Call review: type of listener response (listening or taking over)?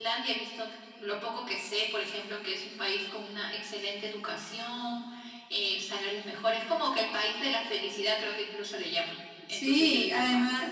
taking over